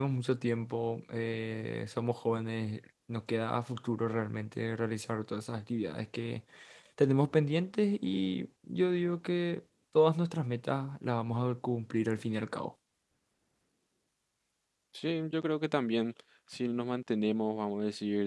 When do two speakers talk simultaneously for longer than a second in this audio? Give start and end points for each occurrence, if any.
none

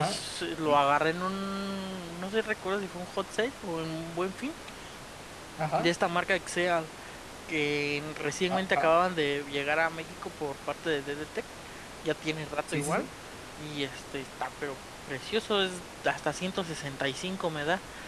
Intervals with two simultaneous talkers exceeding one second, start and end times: none

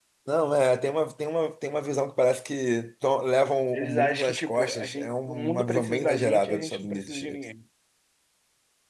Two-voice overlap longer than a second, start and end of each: 3.7-7.2

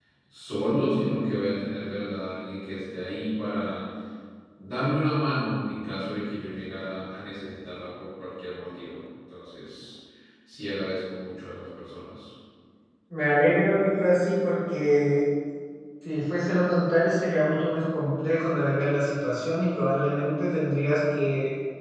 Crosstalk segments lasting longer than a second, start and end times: none

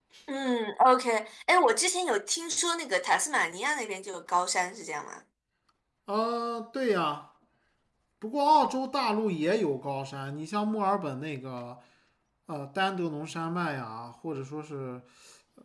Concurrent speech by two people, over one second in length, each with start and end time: none

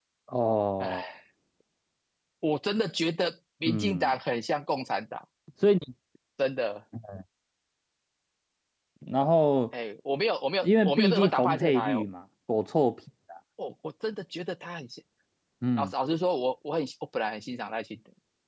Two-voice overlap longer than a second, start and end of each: 10.6-12.1

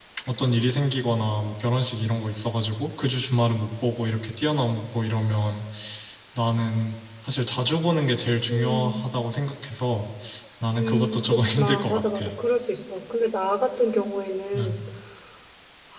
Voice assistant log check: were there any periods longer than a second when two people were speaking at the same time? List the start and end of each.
10.8-12.2

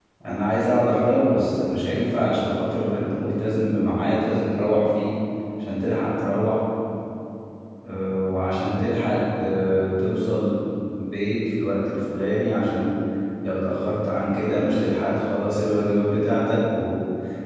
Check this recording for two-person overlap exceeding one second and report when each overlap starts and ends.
none

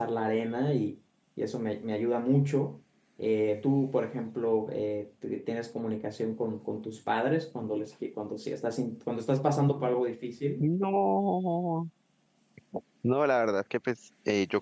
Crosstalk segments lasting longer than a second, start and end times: none

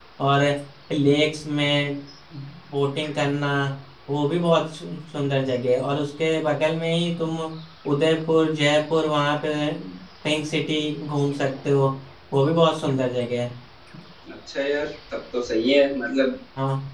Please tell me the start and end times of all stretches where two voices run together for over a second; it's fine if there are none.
none

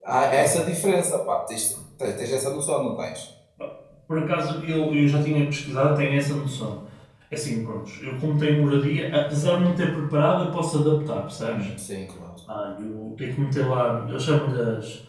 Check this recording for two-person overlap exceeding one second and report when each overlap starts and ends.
none

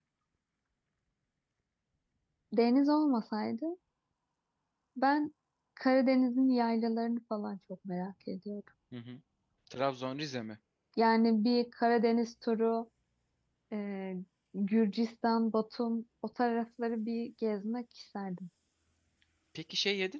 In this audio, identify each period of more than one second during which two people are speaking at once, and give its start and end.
none

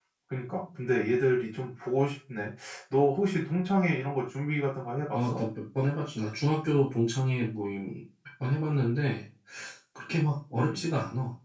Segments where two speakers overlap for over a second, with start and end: none

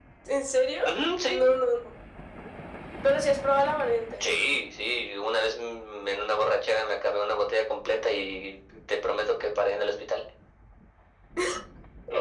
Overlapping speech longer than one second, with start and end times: none

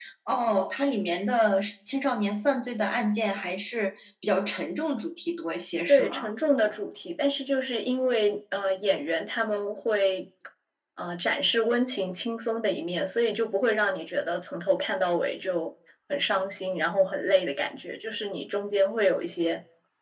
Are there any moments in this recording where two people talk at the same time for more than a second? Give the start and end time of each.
none

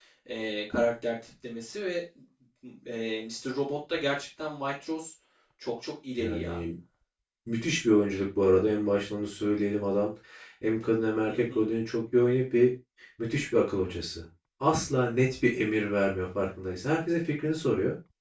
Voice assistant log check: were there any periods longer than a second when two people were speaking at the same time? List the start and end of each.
none

